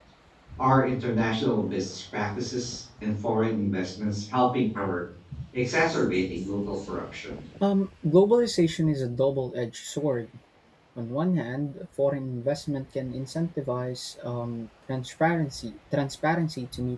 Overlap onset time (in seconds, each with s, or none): none